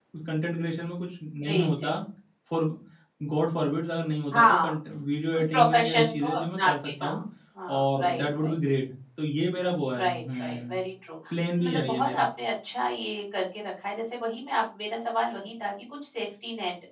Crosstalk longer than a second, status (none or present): present